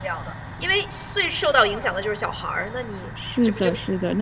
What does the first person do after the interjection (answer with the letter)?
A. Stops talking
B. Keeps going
A